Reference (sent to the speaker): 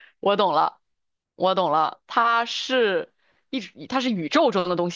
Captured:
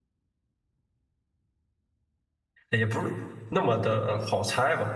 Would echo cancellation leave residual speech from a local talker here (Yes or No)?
Yes